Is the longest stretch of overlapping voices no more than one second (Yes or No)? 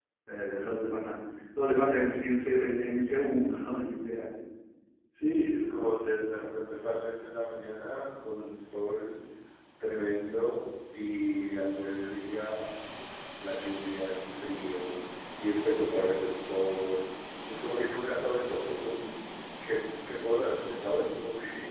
Yes